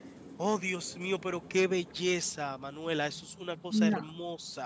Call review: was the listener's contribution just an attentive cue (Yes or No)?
Yes